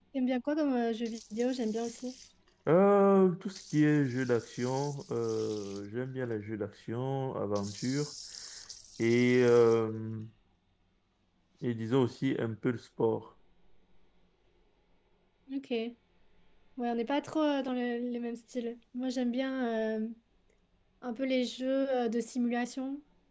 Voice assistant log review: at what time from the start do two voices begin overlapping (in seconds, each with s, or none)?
none